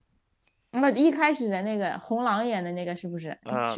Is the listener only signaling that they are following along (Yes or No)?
No